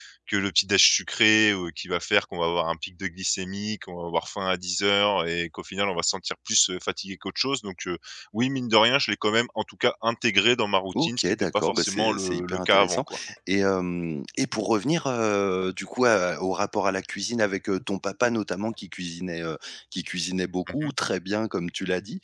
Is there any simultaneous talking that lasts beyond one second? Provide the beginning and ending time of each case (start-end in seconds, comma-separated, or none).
10.9-13.0